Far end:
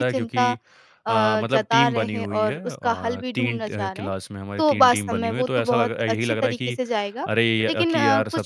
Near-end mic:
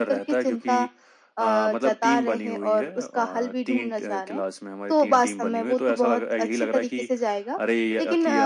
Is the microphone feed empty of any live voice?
Yes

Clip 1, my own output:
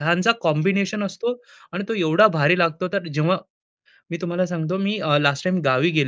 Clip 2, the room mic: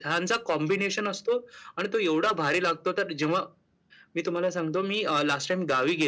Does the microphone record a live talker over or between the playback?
No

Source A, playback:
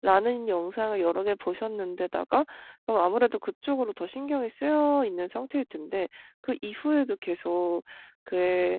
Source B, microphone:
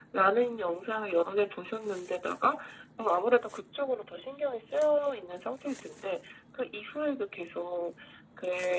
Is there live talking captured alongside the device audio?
No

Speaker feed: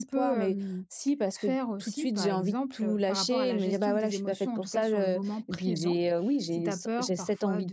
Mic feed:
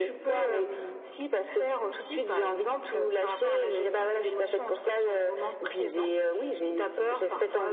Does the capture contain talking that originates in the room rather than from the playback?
No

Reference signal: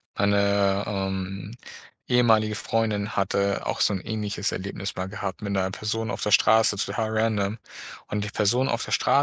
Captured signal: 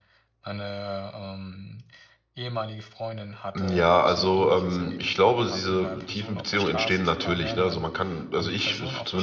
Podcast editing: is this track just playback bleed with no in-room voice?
No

